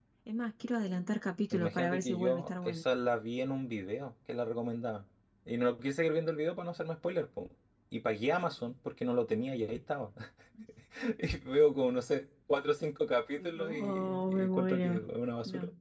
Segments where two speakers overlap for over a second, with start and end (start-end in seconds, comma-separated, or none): 1.5-2.8, 13.4-15.0